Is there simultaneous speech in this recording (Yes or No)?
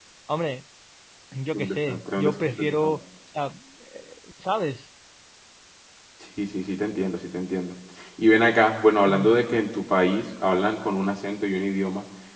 Yes